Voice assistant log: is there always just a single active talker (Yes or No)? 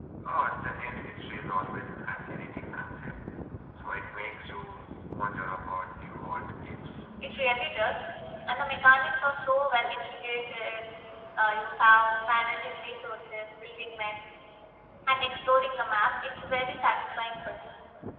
Yes